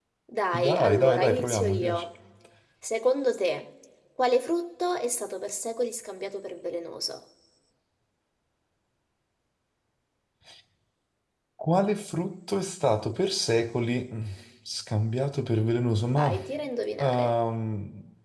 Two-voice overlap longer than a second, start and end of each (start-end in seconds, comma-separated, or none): 0.7-2.0